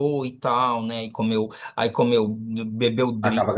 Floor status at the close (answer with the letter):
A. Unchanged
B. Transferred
A